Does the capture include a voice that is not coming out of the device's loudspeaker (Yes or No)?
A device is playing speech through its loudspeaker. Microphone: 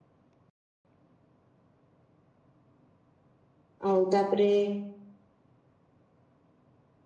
Yes